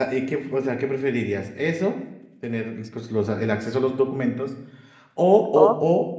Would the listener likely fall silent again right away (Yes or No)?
Yes